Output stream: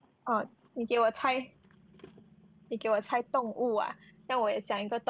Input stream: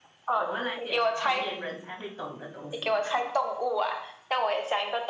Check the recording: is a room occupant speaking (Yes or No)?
Yes